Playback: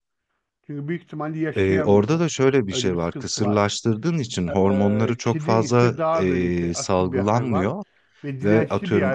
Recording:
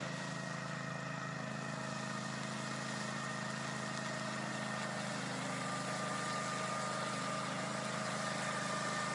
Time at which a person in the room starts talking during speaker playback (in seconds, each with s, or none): none